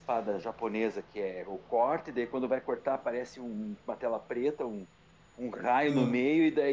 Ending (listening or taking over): listening